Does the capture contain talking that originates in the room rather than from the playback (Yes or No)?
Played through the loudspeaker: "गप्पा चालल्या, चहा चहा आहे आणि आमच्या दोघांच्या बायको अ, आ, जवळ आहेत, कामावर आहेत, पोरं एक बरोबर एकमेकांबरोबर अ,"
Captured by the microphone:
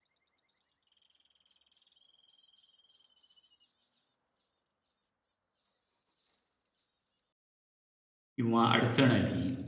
Yes